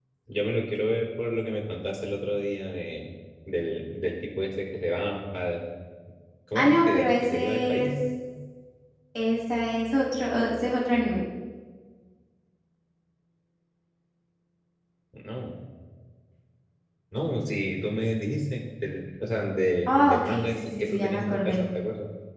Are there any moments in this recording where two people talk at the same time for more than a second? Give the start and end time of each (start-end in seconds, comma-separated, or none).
6.5-7.9, 19.9-21.6